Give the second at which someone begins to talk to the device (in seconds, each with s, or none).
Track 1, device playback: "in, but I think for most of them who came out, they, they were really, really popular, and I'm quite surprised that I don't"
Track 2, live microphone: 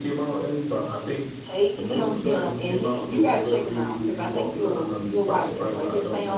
1.4 s